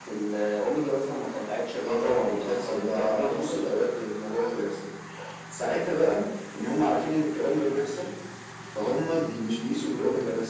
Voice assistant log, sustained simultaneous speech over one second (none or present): present